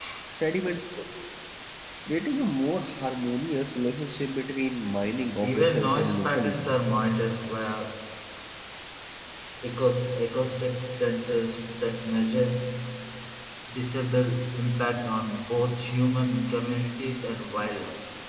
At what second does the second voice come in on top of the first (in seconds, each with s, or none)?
5.4 s